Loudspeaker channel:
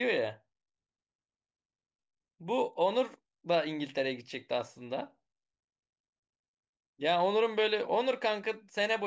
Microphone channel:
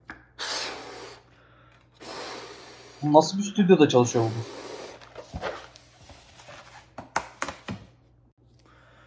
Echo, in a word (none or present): none